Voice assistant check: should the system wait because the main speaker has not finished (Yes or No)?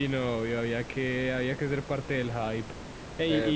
No